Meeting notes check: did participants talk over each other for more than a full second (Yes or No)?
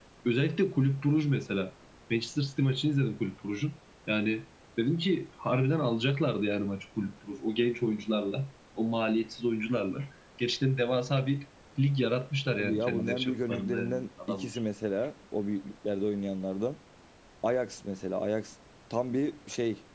Yes